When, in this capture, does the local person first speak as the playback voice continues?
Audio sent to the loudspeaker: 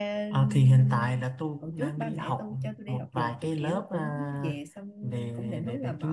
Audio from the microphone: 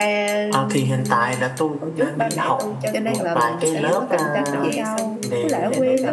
2.9 s

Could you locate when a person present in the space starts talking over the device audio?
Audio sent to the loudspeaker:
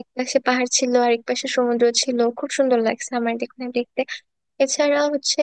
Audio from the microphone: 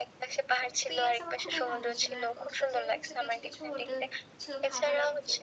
0.7 s

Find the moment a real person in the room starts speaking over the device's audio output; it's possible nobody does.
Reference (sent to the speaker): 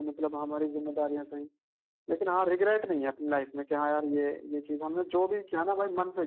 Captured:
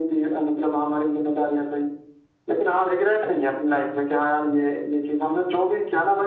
none

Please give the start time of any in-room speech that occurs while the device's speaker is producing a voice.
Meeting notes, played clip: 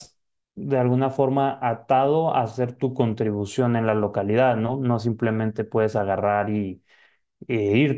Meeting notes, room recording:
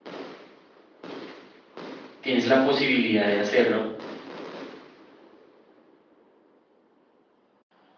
2.2 s

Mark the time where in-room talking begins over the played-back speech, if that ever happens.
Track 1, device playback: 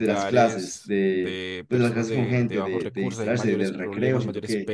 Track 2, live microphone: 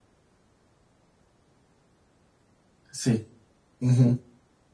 2.9 s

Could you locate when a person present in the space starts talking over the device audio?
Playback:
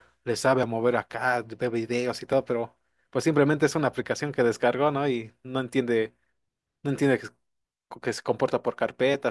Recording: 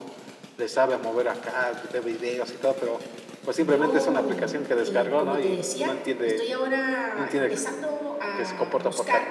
3.6 s

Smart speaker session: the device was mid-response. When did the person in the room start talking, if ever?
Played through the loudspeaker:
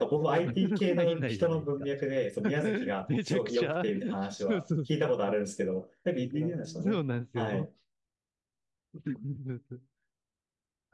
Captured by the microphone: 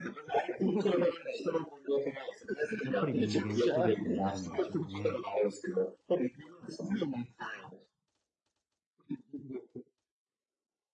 2.8 s

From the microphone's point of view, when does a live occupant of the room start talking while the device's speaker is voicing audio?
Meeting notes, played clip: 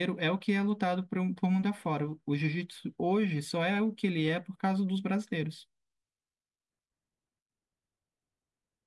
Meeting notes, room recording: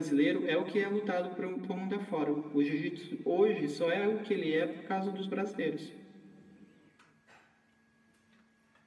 none

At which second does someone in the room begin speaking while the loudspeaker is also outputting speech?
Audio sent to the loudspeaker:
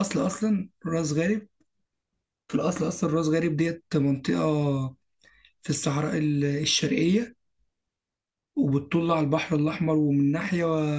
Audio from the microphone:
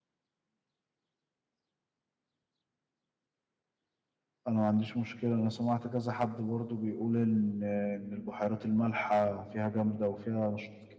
4.5 s

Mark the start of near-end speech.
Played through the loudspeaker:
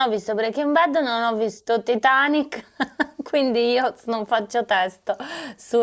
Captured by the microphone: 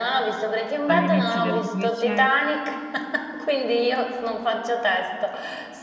0.8 s

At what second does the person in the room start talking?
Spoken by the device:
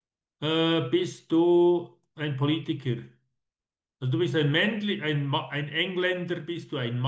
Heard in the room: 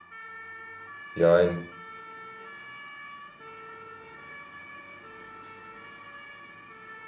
1.1 s

